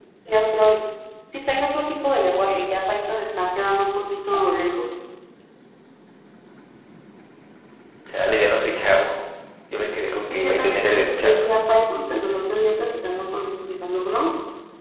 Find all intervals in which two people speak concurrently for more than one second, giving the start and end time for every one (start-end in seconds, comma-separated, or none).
10.3-11.5